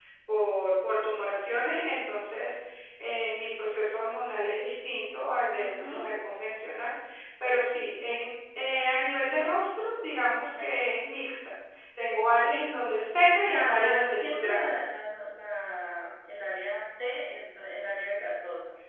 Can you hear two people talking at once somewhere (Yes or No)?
Yes